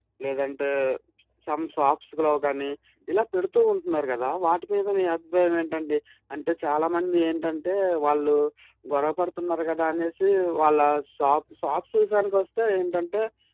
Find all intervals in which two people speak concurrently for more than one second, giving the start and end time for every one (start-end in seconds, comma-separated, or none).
none